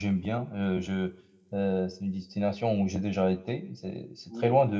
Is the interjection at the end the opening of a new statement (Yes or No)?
No